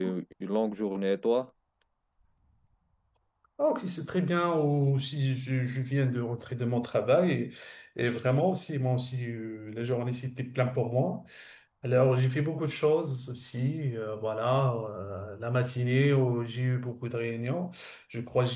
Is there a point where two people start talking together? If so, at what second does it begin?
none

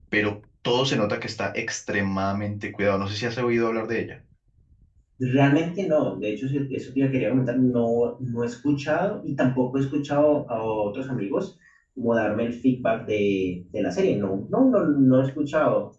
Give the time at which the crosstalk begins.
none

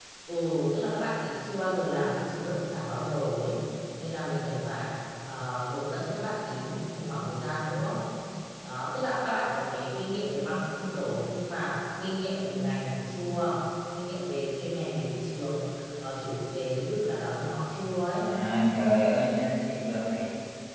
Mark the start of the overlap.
none

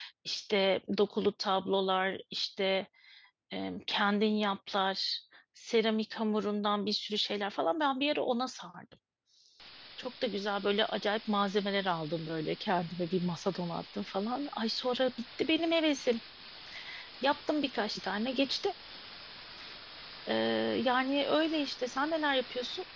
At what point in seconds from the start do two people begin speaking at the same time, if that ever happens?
none

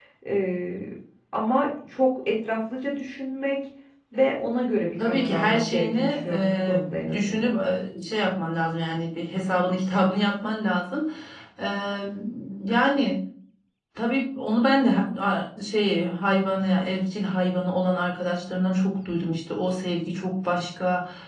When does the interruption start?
5.0 s

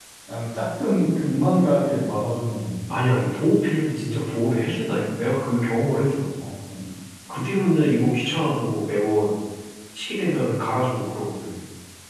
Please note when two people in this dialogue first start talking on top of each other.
none

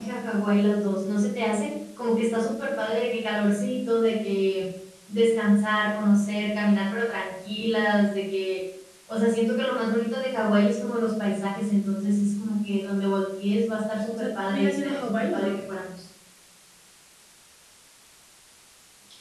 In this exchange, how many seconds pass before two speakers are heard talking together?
14.1 s

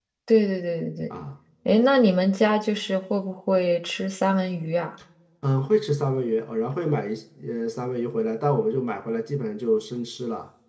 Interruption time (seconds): none

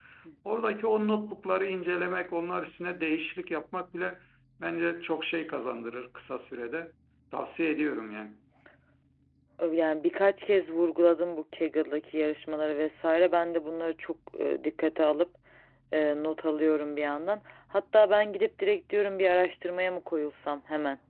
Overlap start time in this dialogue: none

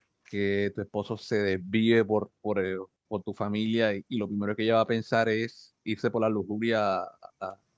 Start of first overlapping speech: none

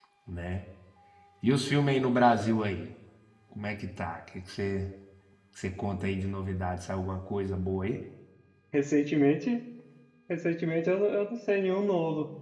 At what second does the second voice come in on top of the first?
none

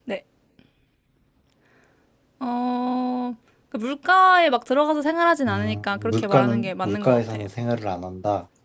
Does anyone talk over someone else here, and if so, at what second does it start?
5.5 s

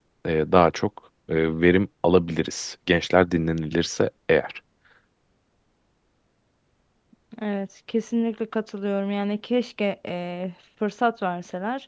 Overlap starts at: none

